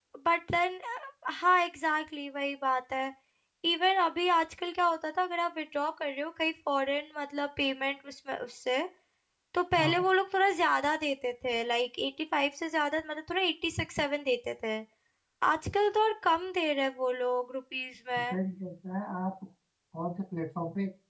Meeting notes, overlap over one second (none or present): none